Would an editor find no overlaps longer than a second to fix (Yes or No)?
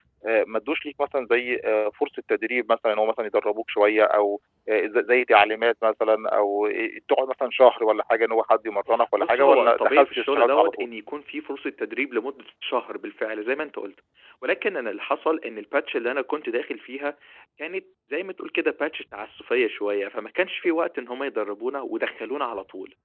No